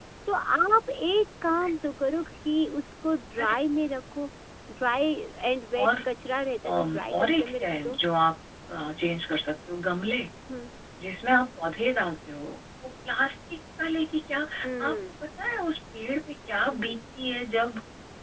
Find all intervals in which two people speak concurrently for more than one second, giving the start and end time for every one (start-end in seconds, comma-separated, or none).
6.7-8.0